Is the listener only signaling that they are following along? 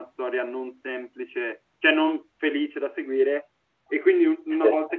Yes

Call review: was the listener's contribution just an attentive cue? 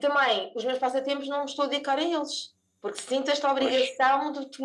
Yes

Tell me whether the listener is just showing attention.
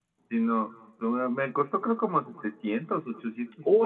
No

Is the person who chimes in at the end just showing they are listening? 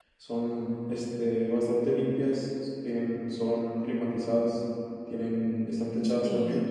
No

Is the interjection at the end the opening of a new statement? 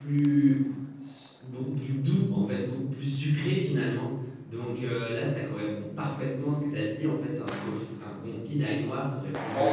Yes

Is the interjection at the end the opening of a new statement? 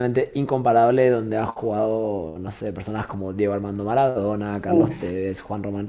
No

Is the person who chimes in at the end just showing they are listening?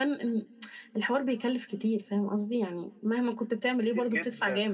No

